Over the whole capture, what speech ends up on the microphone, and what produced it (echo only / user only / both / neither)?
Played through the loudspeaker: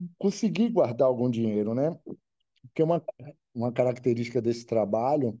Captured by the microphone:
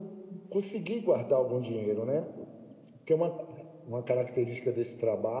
echo only